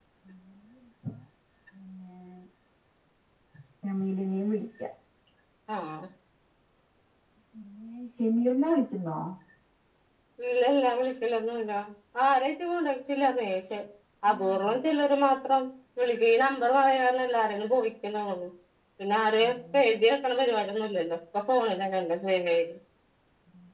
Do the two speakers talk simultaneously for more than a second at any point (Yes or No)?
No